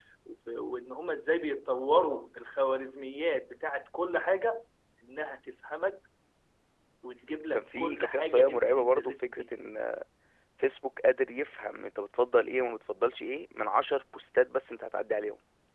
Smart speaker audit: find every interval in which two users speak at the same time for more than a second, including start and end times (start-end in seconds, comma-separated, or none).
7.5-9.4